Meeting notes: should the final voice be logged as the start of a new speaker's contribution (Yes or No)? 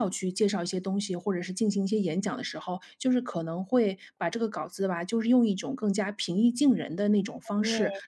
No